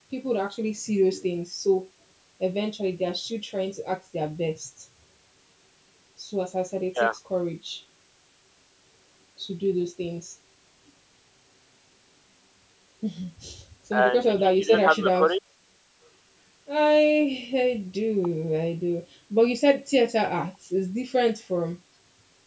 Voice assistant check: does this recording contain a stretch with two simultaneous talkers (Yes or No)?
Yes